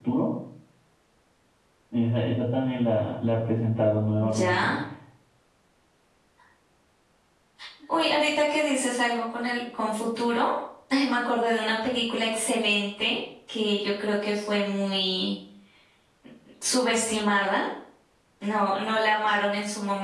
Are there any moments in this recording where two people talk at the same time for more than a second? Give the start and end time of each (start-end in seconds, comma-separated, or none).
none